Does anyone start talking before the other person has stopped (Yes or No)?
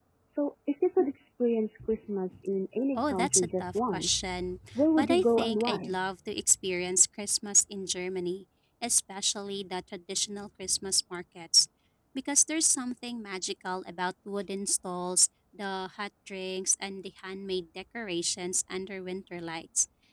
Yes